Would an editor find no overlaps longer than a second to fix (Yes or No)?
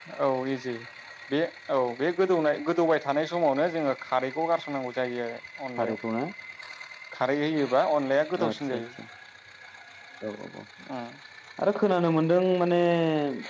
Yes